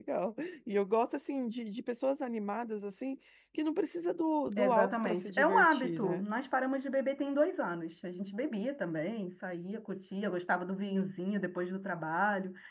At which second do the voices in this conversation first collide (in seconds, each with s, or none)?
4.6 s